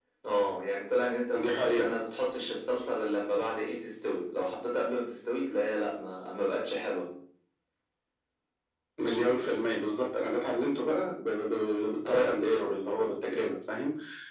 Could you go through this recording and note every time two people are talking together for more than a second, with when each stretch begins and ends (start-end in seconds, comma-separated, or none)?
none